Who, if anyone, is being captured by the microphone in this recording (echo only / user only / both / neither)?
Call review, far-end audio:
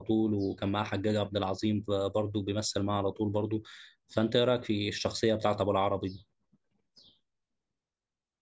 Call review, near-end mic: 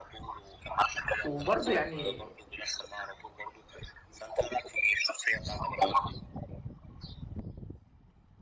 both